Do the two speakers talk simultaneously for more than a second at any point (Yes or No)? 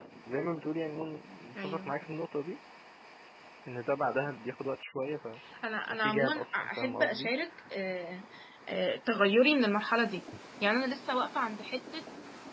Yes